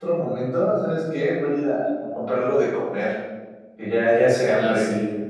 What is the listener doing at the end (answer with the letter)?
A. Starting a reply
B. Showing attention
A